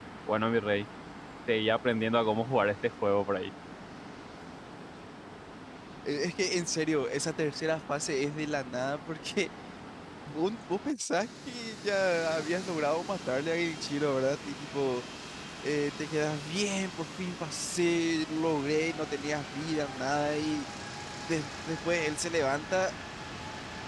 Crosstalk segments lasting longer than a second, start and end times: none

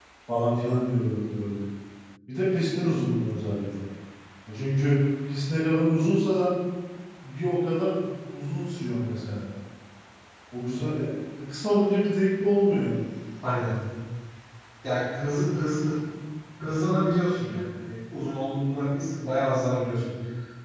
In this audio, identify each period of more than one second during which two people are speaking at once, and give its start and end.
none

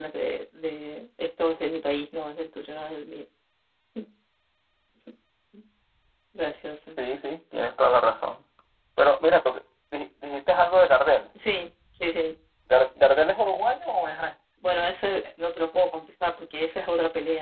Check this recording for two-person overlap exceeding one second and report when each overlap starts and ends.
none

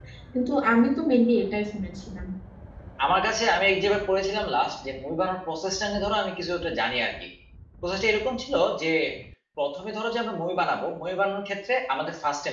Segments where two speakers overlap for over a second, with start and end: none

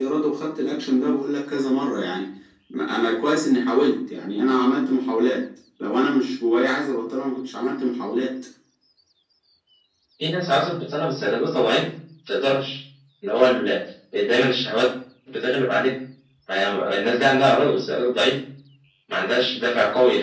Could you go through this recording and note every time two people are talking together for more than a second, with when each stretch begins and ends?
none

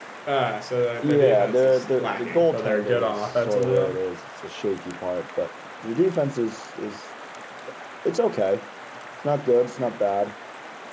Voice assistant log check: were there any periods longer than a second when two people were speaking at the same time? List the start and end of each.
1.0-4.0

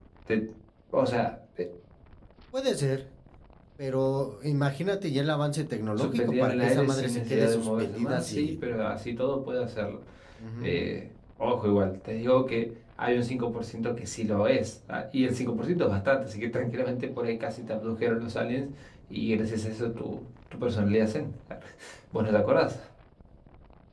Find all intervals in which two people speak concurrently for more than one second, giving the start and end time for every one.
6.0-8.7

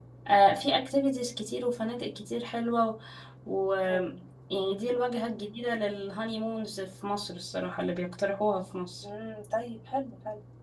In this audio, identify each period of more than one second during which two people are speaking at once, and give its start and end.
none

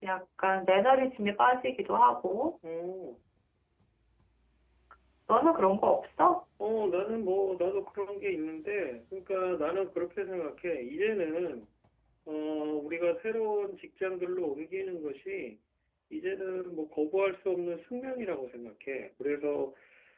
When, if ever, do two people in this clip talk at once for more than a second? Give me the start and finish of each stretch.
none

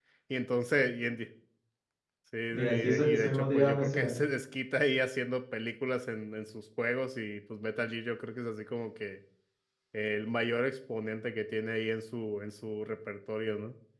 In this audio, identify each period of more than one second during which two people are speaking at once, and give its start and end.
2.5-4.1

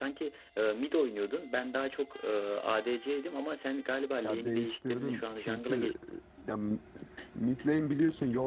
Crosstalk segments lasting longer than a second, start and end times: 4.2-5.9

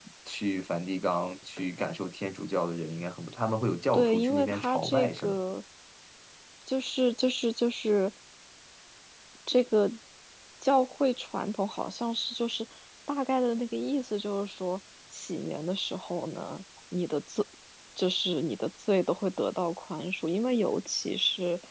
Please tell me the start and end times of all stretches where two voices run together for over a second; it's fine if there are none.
3.9-5.4

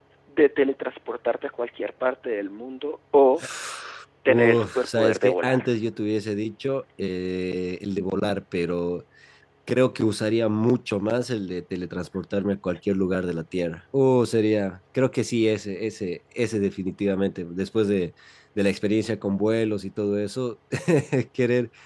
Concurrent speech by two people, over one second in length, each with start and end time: 4.3-5.7

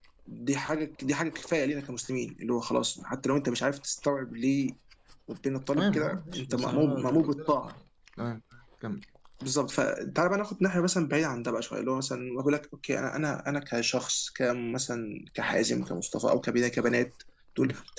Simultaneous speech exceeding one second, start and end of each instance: 5.8-7.5

